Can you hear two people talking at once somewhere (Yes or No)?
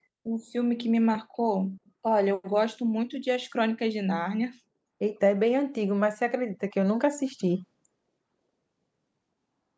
No